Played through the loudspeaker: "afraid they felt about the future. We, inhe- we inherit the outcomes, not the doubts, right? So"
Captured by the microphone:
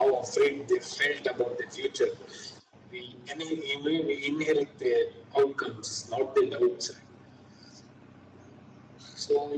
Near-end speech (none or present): none